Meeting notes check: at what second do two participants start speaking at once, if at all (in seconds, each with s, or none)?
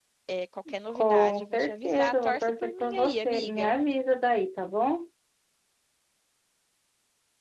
0.9 s